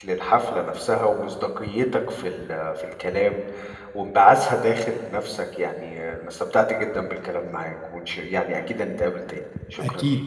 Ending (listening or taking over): taking over